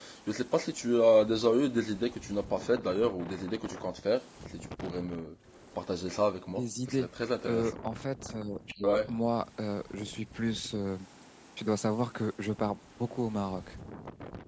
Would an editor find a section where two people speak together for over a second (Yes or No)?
No